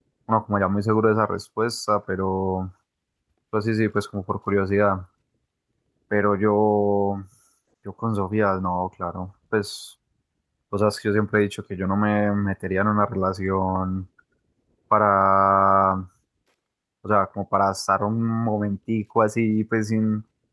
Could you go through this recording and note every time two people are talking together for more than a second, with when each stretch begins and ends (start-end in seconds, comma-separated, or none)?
none